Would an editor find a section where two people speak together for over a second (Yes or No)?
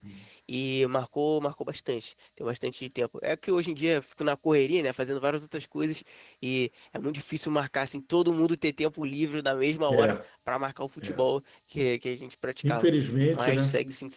No